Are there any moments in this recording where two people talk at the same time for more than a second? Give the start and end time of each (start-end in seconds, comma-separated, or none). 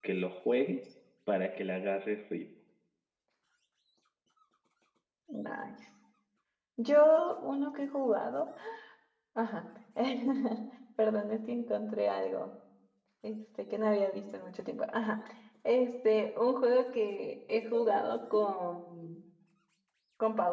none